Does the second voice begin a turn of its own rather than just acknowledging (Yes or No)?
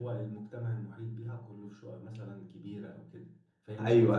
No